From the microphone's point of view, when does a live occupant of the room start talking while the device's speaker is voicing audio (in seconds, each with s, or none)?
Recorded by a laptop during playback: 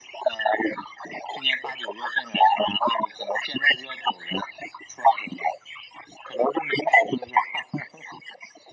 none